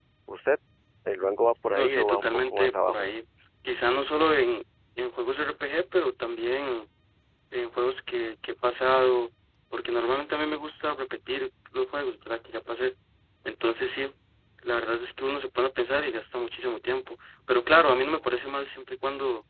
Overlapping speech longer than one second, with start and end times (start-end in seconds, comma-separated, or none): 1.7-3.1